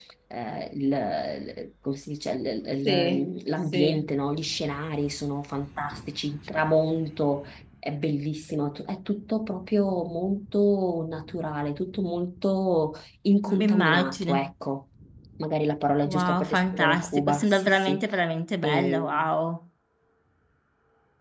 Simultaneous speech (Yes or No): Yes